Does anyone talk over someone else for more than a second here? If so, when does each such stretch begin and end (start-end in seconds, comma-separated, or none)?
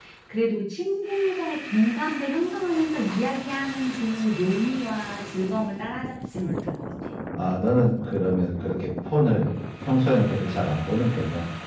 none